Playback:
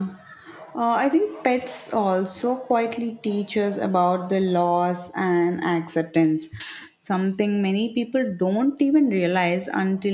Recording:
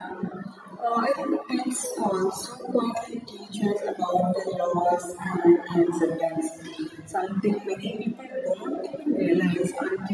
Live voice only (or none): none